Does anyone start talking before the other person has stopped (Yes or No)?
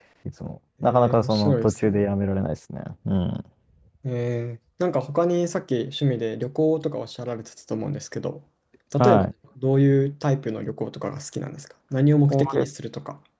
Yes